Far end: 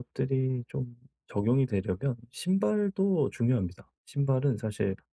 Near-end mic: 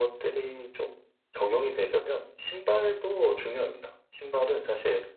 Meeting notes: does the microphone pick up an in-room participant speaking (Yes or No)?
No